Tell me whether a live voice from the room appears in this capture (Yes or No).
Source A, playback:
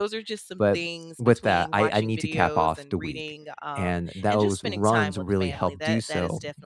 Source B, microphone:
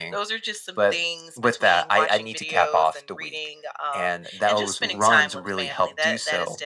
No